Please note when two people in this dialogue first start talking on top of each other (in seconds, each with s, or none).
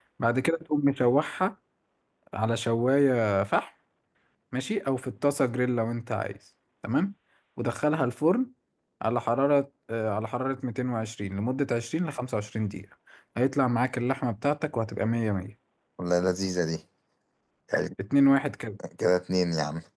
none